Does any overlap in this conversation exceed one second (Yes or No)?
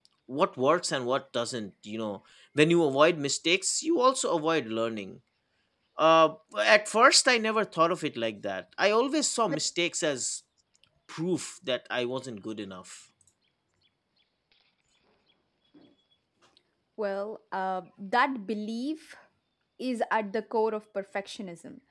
No